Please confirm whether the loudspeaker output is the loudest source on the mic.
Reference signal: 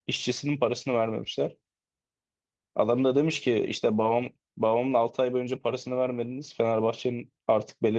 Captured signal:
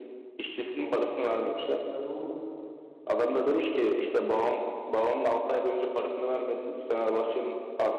Yes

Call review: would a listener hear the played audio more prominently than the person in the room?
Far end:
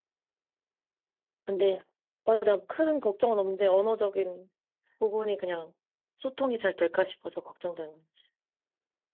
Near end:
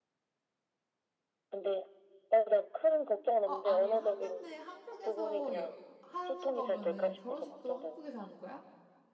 Yes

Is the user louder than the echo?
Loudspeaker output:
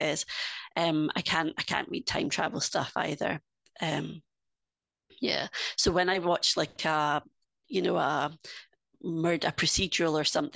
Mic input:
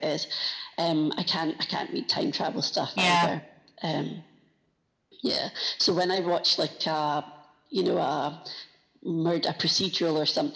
Yes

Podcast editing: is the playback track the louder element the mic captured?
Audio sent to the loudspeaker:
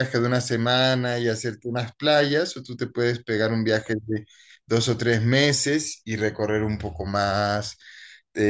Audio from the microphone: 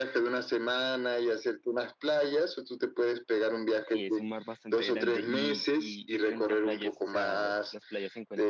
Yes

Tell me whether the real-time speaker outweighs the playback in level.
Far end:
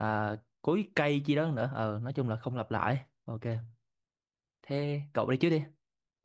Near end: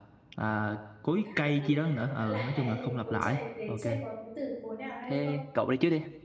No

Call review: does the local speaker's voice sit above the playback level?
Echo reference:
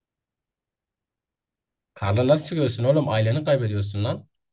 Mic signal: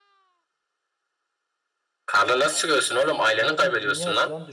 No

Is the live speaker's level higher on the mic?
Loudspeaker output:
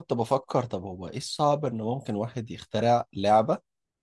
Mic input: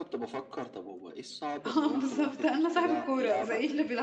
Yes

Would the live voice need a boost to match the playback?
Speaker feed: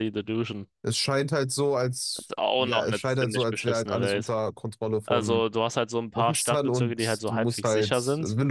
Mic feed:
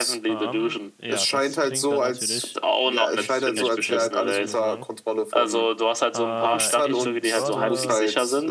Yes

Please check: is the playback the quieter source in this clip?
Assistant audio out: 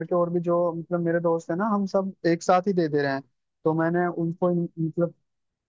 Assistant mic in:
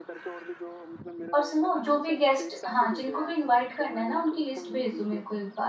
Yes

